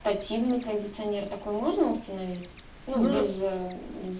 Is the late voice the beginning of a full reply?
No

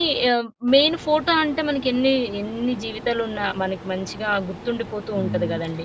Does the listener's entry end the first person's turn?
Yes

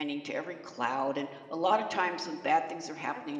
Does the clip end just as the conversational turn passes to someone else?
No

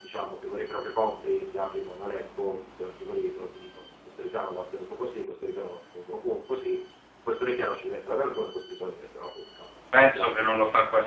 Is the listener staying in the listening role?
No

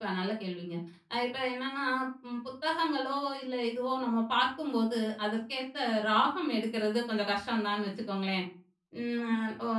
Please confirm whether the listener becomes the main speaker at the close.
No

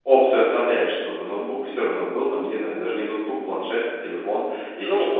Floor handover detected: Yes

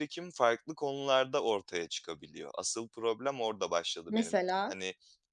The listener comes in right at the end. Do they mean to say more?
No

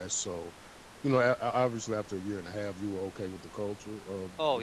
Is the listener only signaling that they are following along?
No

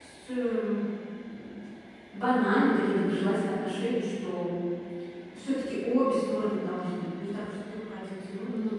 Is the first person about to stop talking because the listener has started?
Yes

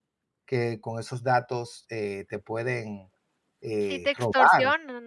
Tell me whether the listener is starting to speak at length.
Yes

